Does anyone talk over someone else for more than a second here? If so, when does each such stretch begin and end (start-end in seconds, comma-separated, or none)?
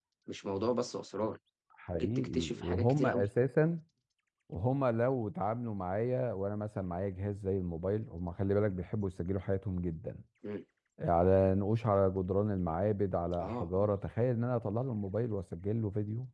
2.0-3.3